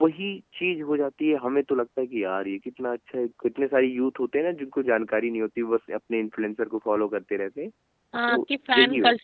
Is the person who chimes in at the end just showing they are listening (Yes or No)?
No